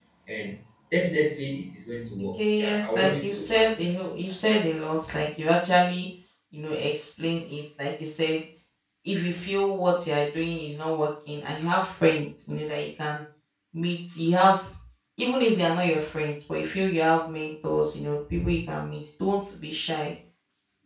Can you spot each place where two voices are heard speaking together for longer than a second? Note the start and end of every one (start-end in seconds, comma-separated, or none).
2.4-3.9